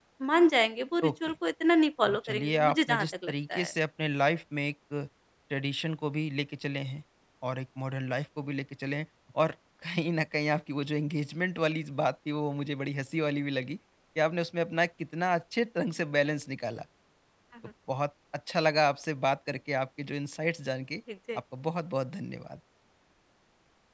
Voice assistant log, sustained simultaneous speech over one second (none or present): present